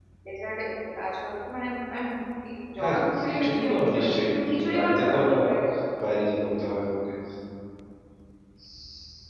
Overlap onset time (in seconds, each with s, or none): 2.8 s